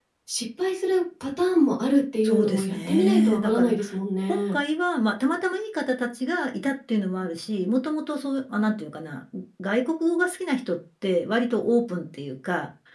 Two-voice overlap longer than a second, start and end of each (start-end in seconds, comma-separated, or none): 2.2-3.7